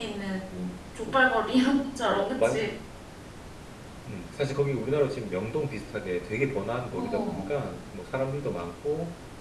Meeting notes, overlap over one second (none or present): none